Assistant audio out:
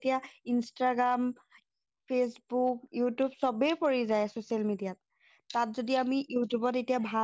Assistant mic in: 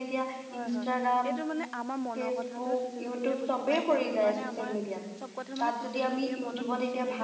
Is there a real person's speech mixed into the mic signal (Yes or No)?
Yes